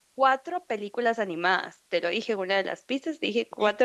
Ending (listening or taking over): taking over